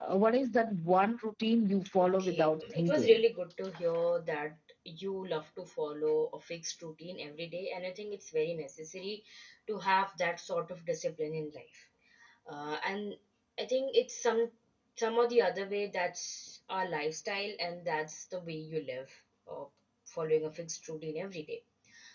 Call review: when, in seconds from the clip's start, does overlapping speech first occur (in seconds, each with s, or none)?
2.0 s